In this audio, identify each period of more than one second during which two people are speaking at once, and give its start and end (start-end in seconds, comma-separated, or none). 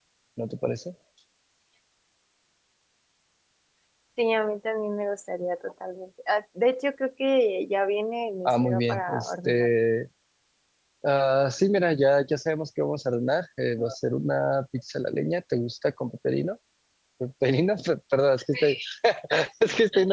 8.4-9.7